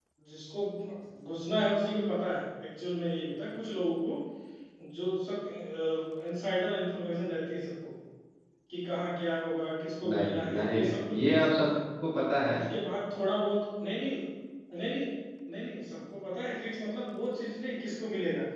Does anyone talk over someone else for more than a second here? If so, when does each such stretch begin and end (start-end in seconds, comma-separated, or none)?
10.1-11.8